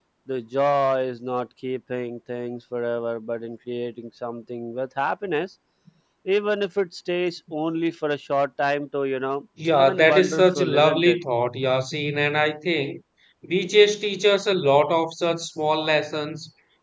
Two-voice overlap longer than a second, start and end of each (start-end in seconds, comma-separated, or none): 9.7-11.2